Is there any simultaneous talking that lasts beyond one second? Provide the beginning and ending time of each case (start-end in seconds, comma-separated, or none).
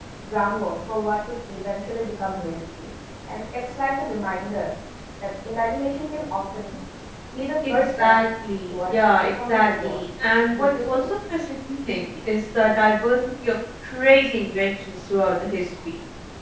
8.7-10.0